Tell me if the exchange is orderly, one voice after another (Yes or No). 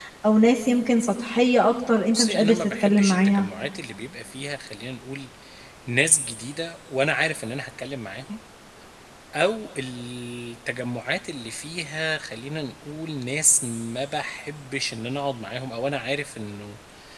No